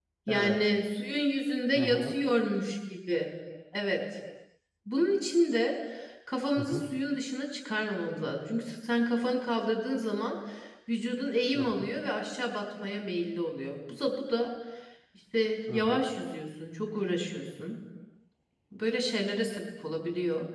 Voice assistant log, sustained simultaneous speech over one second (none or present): none